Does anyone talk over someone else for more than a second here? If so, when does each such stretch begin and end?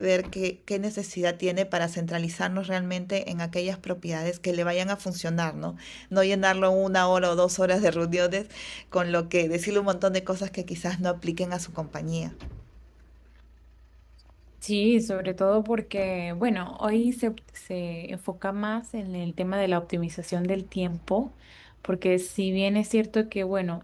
none

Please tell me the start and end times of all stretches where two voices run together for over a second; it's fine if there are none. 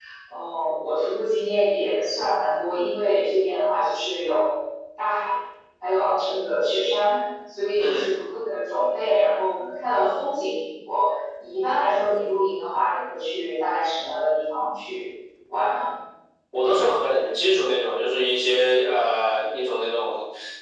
none

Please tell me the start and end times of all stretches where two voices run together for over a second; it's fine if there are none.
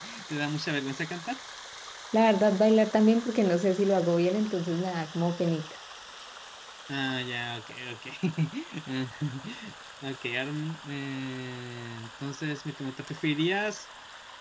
none

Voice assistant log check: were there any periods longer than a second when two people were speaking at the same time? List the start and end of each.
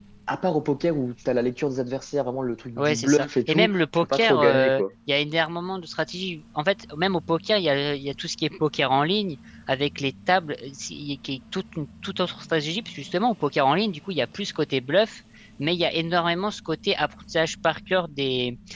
2.8-4.8

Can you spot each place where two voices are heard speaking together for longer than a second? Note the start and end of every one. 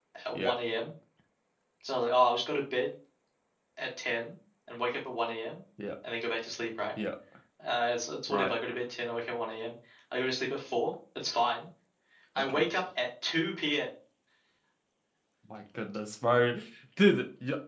none

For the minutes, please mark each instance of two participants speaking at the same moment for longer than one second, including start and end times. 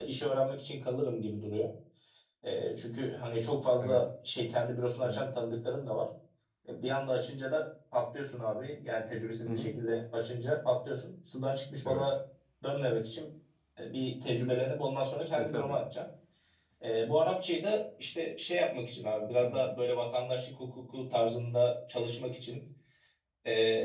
none

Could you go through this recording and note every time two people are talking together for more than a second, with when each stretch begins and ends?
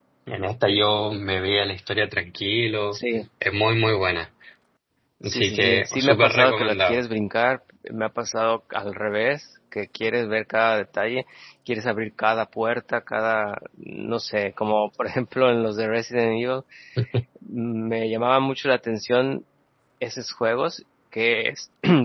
5.2-7.0

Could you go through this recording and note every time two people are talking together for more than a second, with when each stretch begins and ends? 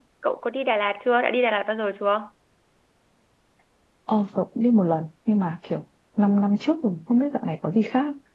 none

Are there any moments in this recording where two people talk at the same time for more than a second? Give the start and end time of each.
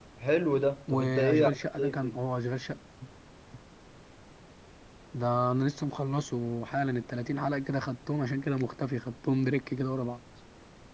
0.9-2.2

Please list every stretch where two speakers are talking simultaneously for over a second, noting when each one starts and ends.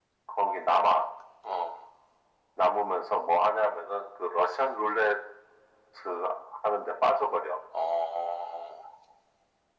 none

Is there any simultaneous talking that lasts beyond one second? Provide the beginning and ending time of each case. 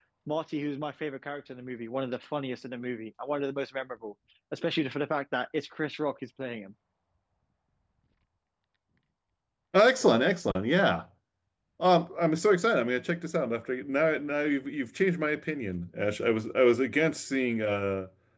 none

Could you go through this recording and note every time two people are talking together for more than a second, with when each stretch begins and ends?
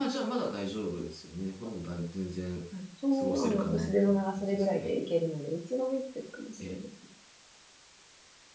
3.2-4.9

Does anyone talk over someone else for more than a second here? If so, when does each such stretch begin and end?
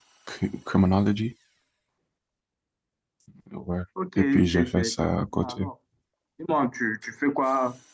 4.2-5.7

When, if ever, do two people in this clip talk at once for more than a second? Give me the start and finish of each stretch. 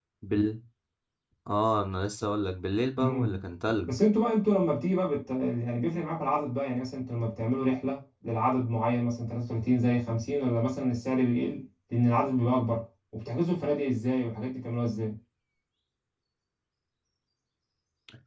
none

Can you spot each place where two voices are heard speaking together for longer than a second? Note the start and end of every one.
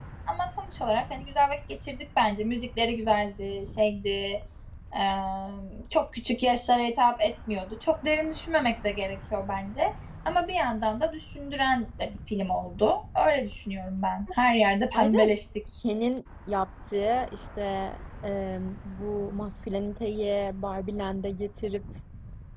none

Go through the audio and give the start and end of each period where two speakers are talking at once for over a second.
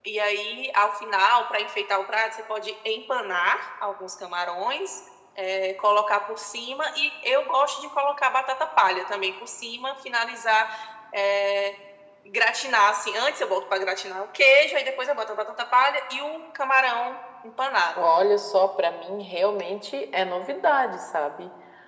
none

